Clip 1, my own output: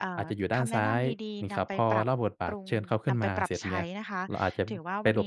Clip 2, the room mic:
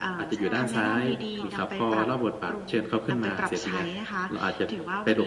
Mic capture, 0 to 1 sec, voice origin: both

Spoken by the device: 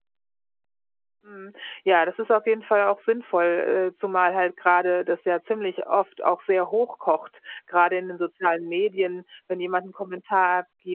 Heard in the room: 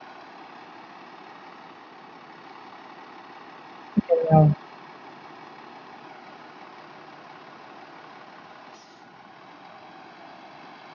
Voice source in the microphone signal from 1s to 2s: neither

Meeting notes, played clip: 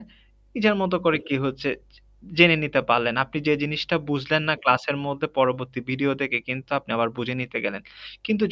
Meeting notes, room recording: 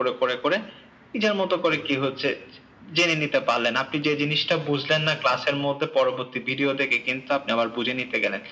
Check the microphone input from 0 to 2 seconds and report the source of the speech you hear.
echo only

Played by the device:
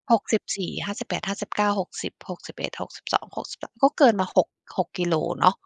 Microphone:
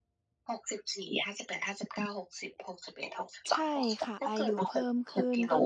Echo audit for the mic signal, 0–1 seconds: echo only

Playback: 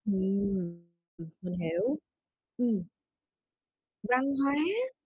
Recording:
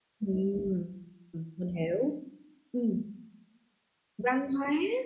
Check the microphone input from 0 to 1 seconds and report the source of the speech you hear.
echo only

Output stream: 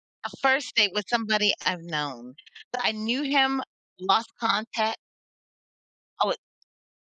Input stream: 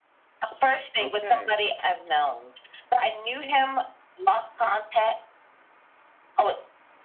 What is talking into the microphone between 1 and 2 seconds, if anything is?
both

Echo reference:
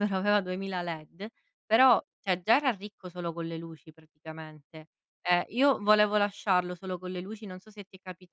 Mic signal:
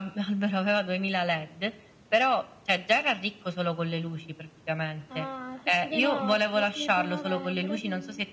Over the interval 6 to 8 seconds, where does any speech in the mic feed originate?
both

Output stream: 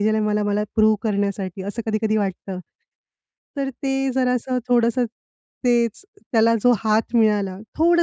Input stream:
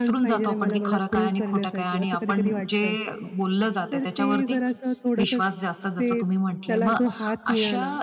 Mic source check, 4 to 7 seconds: both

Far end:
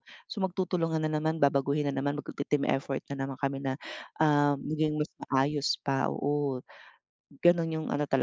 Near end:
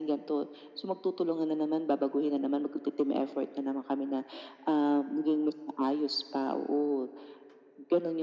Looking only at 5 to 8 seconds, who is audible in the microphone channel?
echo only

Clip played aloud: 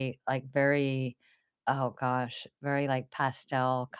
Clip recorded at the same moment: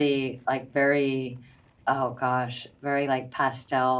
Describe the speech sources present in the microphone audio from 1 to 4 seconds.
echo only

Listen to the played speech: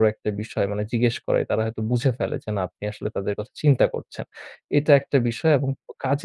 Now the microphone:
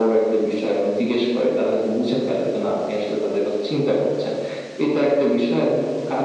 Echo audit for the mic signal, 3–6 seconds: echo only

